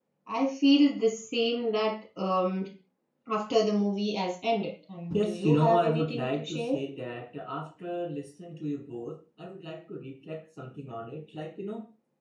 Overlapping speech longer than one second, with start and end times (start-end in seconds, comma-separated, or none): 5.1-6.8